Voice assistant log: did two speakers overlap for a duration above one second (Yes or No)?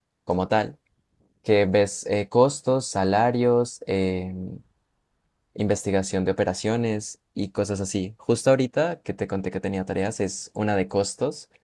No